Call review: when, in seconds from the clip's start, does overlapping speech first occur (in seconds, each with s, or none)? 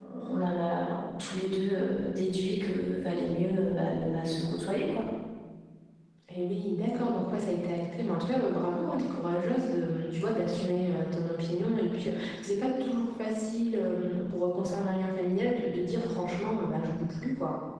none